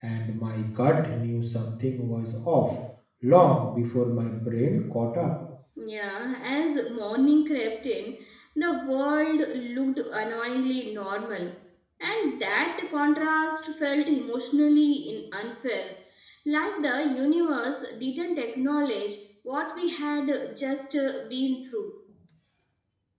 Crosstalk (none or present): none